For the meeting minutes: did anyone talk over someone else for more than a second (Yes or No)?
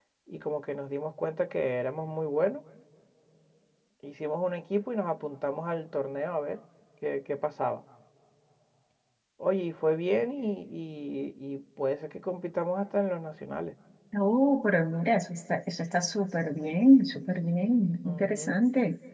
No